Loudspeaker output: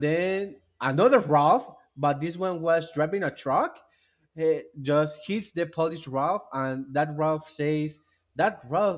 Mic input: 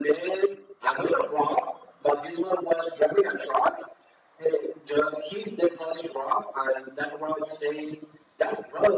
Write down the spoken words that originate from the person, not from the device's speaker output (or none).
none